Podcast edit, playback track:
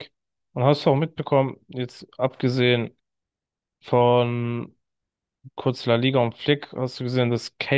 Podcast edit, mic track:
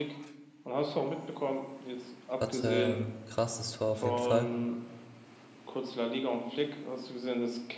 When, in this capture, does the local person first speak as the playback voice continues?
2 s

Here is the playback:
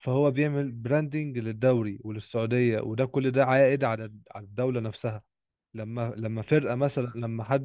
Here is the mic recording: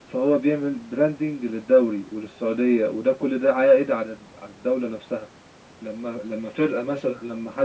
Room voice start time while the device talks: none

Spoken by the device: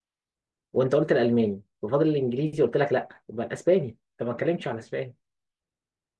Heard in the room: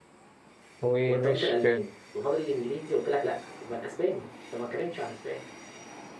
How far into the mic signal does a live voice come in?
1 s

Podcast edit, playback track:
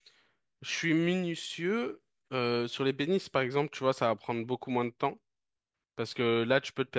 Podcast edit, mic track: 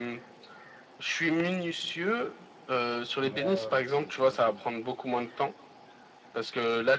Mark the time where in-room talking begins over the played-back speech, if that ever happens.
3 s

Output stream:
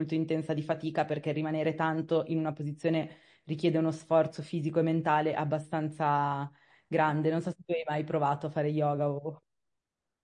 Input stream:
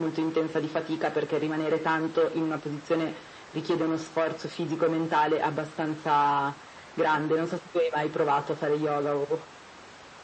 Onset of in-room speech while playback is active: none

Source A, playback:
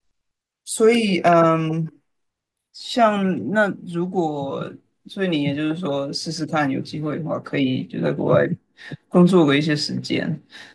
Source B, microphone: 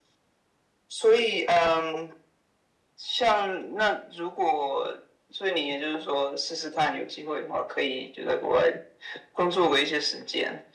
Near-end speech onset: none

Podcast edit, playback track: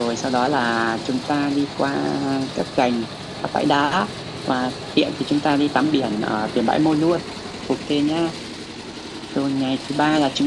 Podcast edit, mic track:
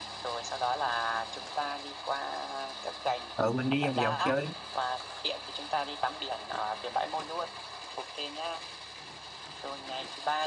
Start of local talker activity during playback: 3 s

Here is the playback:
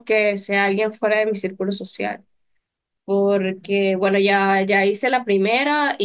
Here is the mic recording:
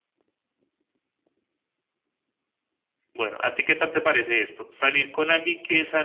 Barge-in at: 3 s

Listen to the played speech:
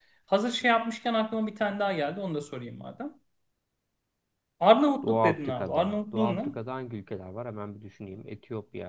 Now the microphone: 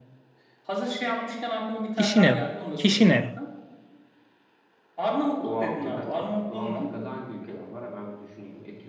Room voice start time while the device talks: 2 s

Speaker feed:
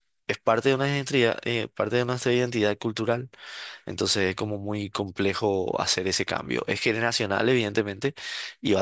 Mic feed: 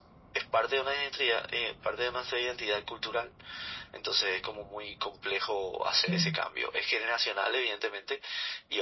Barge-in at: 6 s

